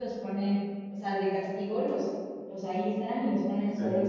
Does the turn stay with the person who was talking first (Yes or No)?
Yes